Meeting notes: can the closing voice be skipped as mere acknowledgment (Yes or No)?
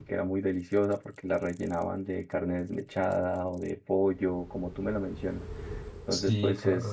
Yes